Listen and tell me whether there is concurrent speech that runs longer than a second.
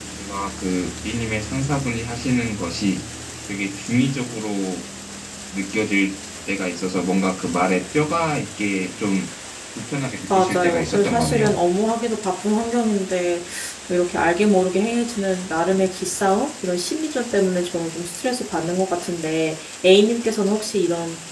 Yes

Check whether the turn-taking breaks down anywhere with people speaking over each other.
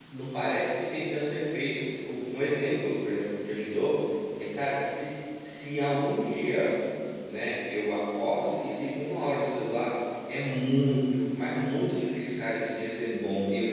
No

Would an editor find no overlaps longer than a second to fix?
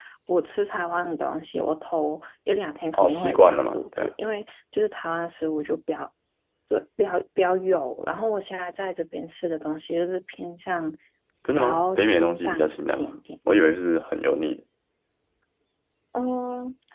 No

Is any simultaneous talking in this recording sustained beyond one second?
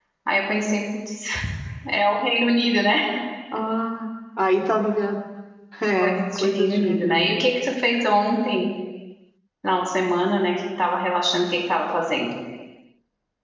Yes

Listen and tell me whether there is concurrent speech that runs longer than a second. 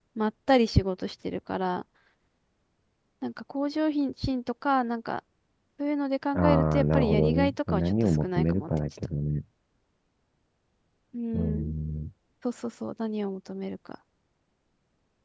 Yes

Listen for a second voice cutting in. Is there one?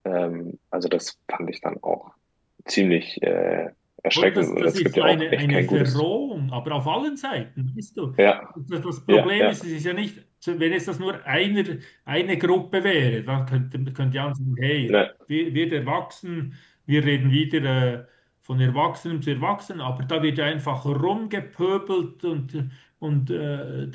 Yes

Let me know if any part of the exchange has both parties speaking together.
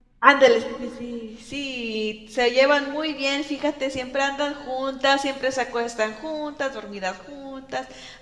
No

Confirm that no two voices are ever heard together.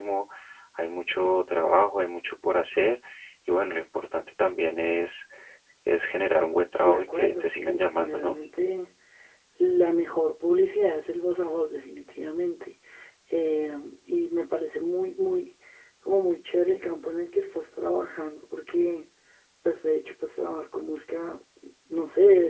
No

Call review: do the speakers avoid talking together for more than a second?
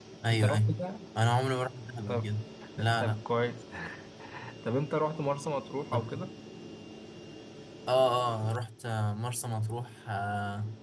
Yes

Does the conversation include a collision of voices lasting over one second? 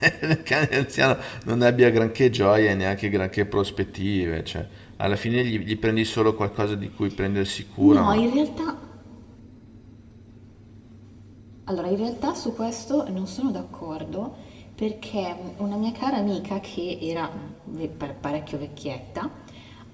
No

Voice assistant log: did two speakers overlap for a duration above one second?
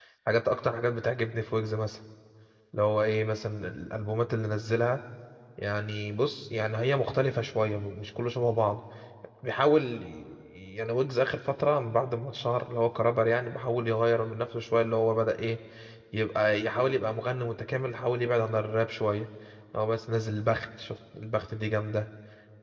No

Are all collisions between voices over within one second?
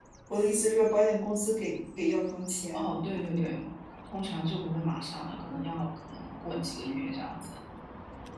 Yes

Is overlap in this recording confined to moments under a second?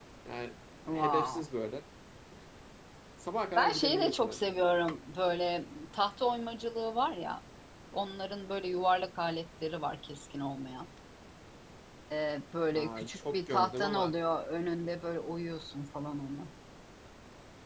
No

